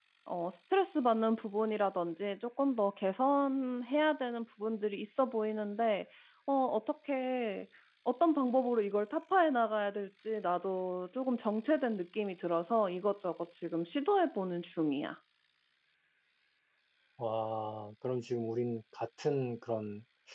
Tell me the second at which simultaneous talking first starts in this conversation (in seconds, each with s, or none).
none